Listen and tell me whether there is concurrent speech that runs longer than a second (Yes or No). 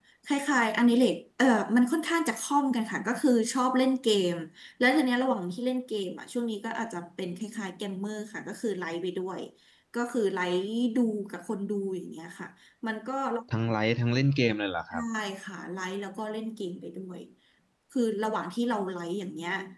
No